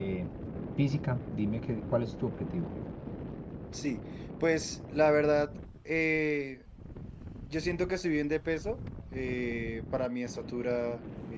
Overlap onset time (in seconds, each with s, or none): none